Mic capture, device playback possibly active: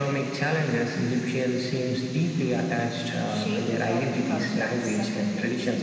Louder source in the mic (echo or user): echo